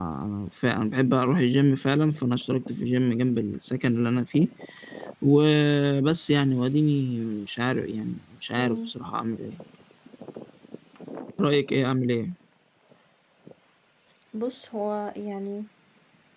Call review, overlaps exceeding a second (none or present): none